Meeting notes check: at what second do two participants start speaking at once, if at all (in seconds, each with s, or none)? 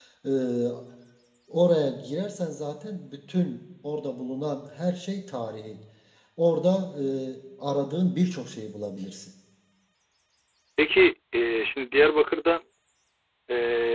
none